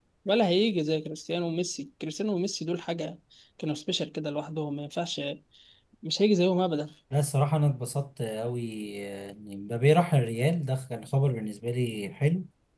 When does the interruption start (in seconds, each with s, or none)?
none